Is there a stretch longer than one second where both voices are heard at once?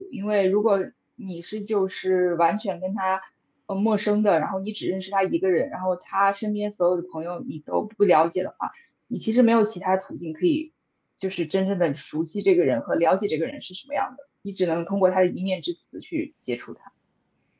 No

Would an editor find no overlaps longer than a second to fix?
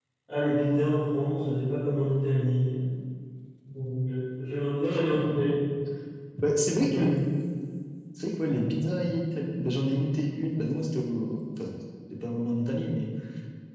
Yes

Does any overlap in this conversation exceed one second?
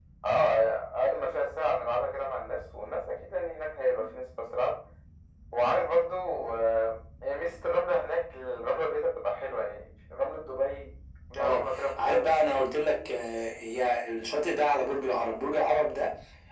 Yes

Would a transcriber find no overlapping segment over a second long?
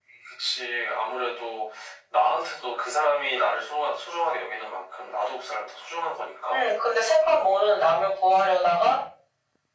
Yes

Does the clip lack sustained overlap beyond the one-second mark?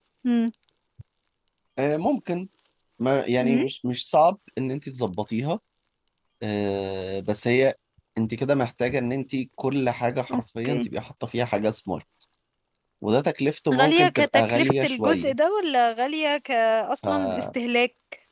No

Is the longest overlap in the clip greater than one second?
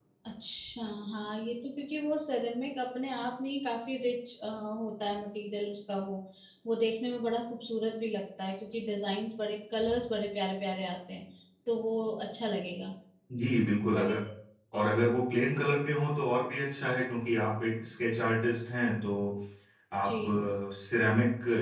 No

